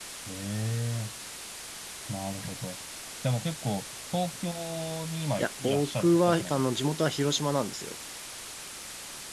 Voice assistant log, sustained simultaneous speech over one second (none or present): present